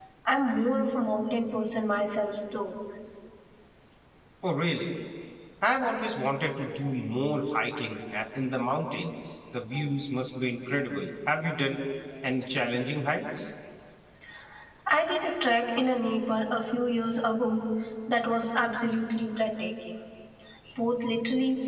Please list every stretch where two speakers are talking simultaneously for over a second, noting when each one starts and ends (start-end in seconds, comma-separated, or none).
none